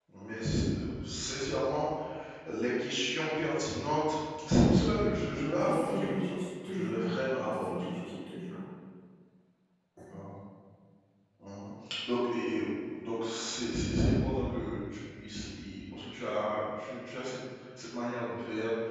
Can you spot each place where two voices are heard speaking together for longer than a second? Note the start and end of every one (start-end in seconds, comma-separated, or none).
5.6-8.0